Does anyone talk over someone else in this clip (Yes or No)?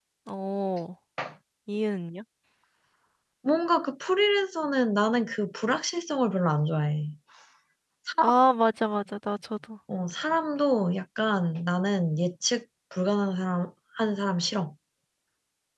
No